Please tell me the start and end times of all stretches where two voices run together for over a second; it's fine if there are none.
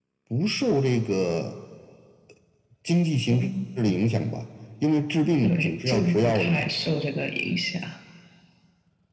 5.4-6.7

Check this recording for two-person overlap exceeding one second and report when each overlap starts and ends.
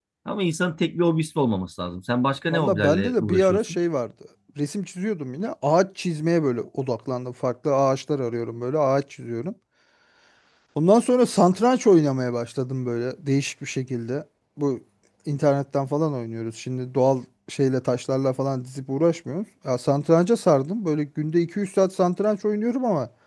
2.5-3.8

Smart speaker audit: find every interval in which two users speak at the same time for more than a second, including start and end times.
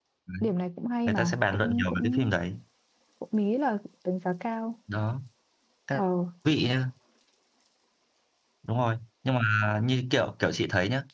1.1-2.3

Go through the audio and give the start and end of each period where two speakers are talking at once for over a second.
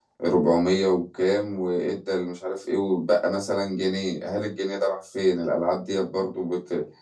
none

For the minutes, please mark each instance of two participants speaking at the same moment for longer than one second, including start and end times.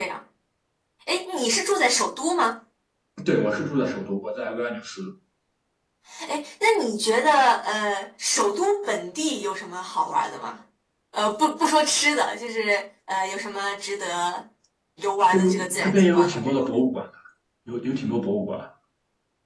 15.3-16.8

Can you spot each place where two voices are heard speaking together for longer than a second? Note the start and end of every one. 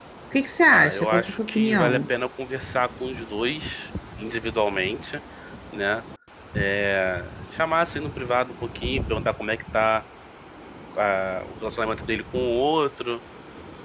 0.7-2.1

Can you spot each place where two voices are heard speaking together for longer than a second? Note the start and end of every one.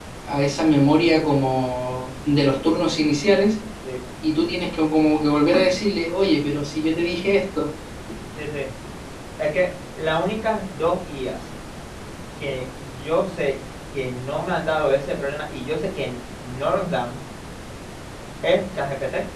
none

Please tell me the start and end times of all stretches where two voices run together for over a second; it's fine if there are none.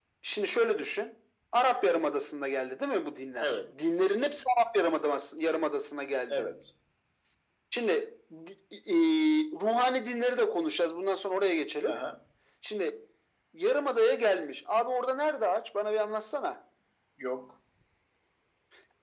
none

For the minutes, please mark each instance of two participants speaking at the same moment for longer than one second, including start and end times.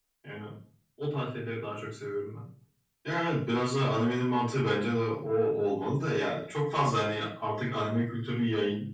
none

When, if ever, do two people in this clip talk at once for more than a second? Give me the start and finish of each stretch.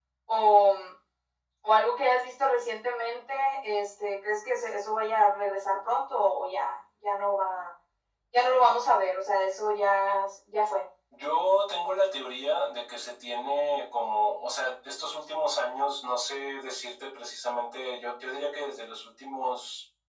none

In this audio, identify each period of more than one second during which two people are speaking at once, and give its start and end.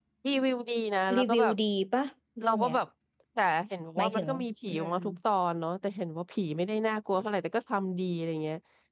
none

